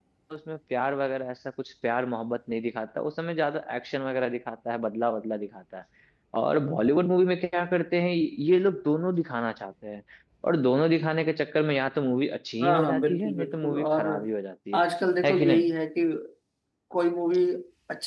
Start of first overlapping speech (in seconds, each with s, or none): 12.6 s